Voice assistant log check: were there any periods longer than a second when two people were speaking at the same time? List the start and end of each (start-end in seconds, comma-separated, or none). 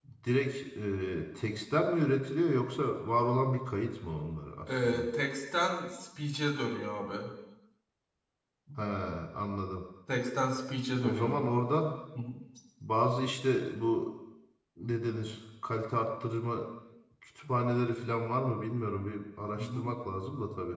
none